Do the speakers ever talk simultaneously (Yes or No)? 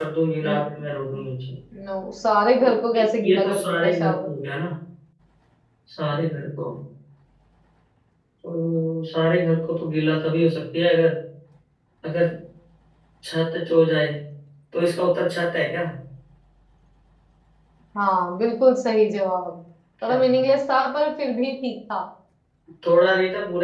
Yes